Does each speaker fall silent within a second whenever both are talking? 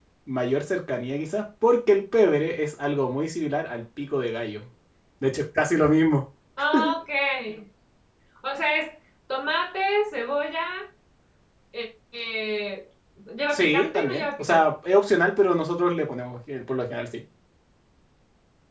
No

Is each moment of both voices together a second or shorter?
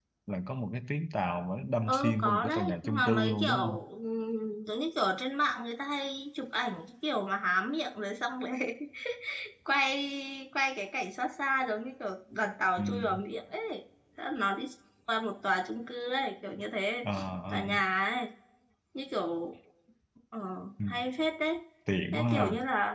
No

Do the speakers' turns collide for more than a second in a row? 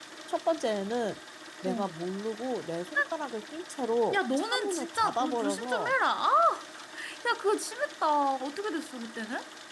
Yes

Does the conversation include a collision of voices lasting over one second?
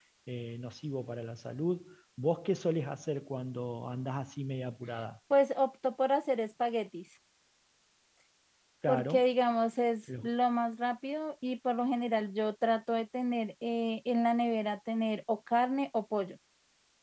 No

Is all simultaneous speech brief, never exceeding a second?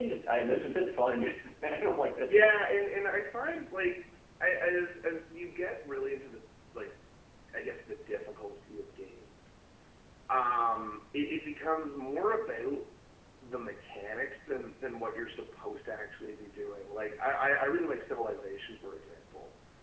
Yes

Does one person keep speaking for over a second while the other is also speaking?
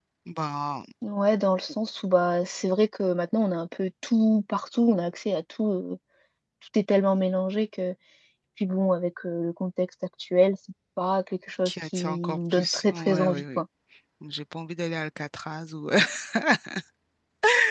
Yes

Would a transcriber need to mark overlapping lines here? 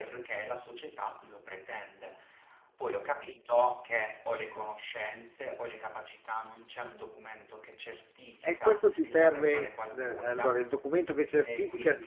Yes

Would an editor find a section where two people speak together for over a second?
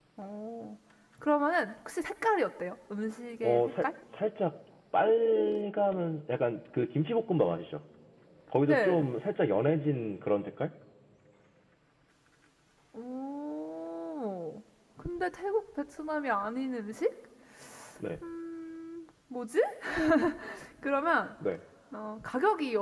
No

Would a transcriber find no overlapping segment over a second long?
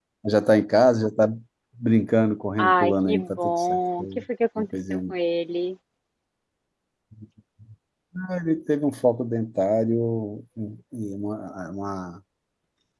No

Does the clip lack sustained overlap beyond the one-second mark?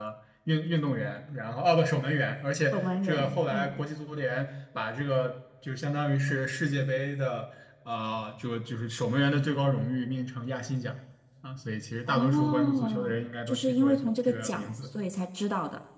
No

